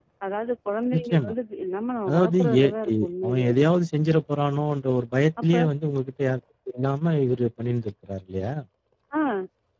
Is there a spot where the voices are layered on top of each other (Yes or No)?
Yes